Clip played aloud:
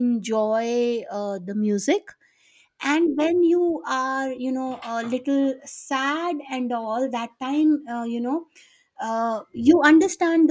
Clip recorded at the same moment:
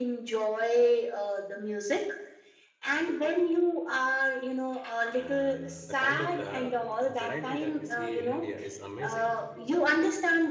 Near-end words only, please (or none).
and the kind of the variety that we see in india is amazing